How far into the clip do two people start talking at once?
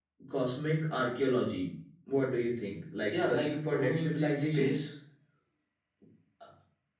3.1 s

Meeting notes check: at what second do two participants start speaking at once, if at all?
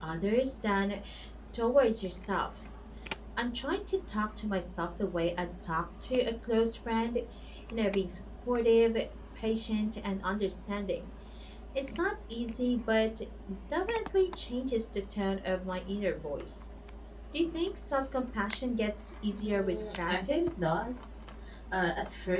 19.3 s

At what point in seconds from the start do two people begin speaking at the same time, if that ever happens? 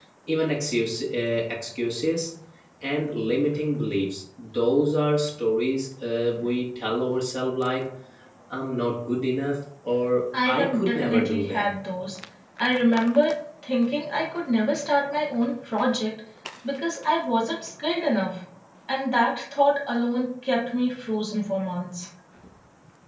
10.3 s

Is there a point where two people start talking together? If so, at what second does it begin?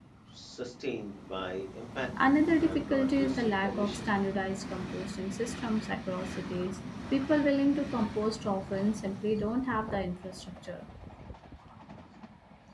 2.2 s

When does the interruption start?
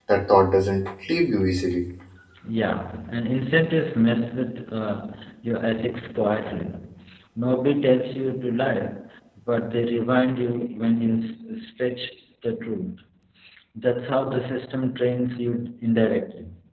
none

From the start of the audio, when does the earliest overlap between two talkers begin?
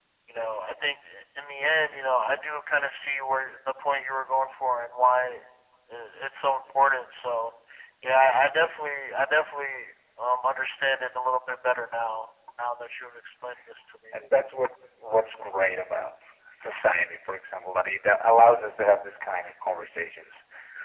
none

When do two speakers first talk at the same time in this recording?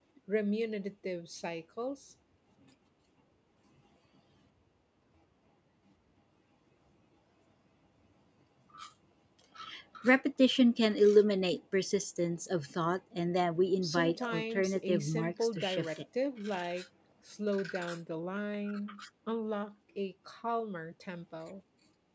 13.8 s

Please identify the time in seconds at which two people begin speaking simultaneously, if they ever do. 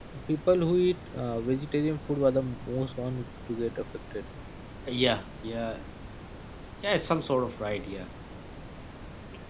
none

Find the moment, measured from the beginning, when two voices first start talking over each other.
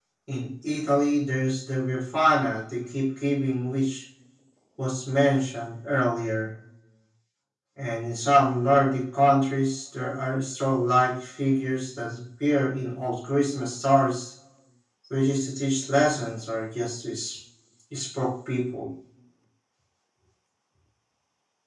none

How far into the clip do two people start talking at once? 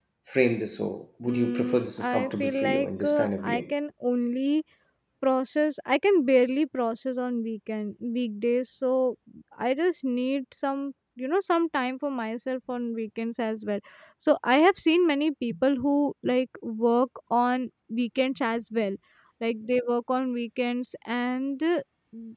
1.3 s

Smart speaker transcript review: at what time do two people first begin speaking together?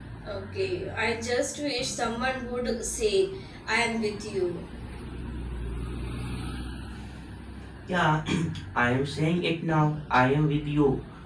none

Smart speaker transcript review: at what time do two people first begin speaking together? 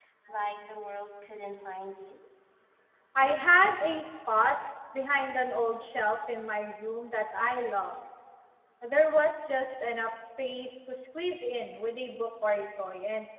none

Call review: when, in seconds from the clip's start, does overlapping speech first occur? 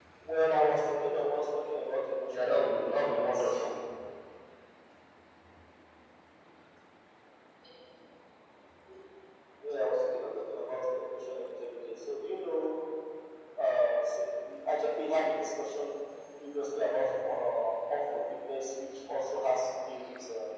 2.3 s

